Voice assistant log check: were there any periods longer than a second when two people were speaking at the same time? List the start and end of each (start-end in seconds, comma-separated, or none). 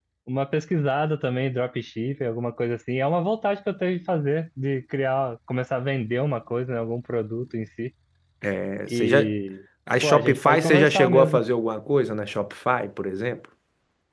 10.0-11.4